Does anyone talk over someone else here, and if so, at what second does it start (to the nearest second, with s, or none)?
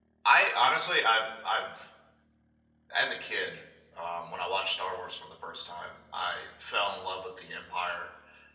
none